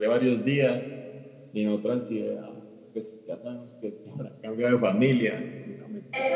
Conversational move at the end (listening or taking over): taking over